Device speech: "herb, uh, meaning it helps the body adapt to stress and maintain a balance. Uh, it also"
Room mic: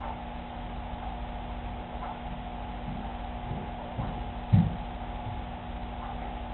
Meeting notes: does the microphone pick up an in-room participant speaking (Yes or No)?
No